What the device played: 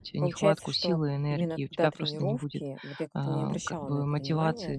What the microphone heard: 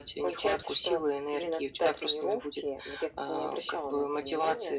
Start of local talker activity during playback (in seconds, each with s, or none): none